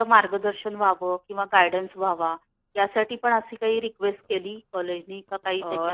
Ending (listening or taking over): taking over